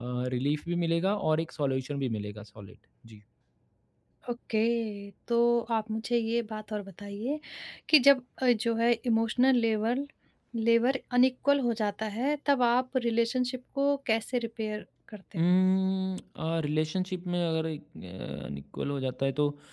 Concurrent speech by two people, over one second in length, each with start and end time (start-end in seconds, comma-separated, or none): none